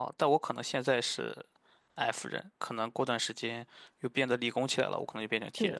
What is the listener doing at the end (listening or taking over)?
taking over